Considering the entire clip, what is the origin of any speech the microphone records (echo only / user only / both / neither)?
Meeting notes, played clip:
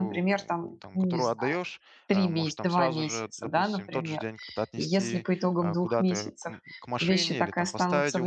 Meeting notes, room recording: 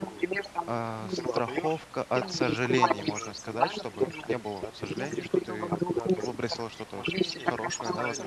both